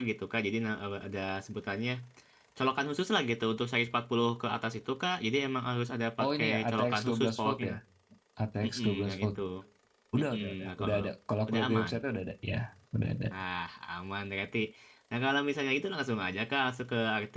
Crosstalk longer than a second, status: present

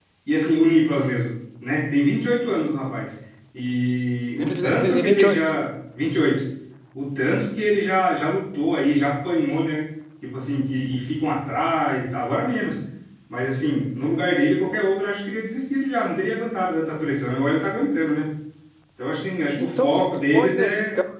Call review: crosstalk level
present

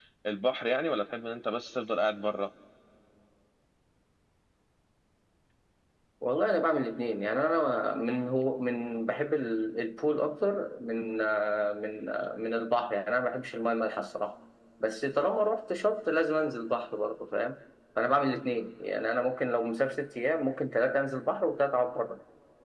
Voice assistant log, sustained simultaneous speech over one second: none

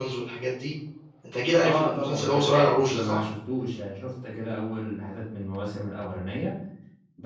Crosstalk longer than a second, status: present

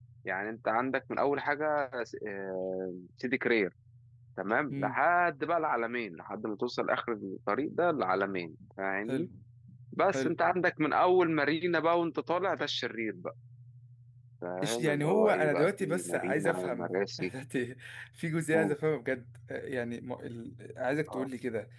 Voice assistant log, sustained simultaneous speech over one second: present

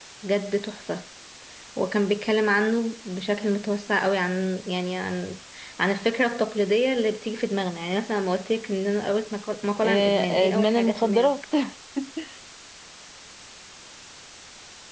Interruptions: present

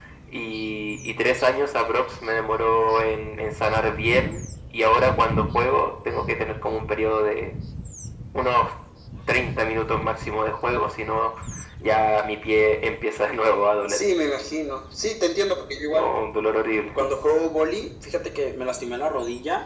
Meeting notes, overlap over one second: none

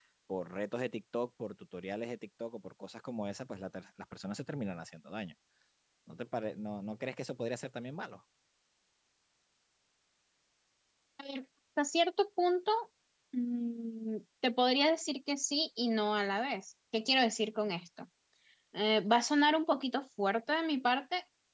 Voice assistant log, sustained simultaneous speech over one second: none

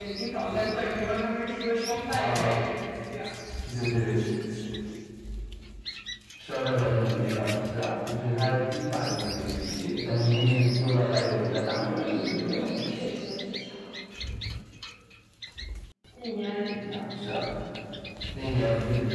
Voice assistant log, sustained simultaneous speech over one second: present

